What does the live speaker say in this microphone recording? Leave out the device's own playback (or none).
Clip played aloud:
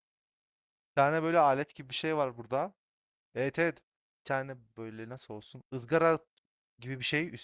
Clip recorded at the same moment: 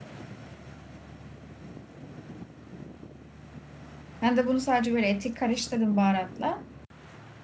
Ben de bunu sadece böyle eti karıştırdım baharatla.